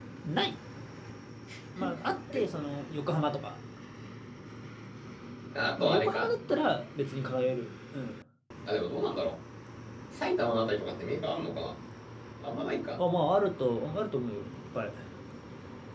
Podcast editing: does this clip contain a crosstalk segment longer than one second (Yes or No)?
No